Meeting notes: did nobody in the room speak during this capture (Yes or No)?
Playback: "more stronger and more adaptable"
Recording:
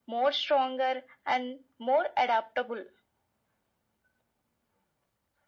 Yes